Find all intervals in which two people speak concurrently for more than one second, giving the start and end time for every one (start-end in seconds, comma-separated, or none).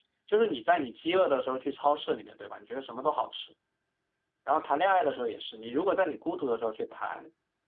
none